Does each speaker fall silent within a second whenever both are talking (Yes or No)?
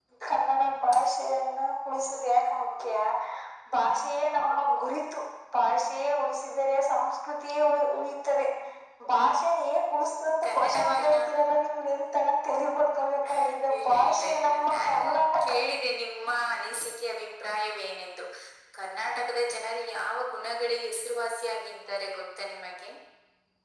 No